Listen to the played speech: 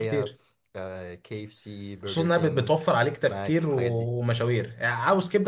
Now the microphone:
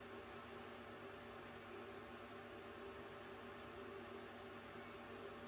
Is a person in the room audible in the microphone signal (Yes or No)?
No